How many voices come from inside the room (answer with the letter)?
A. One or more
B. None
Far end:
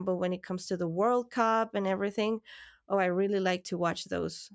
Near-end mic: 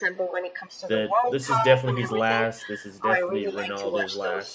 A